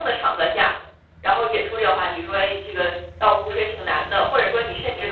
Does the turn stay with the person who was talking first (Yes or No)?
Yes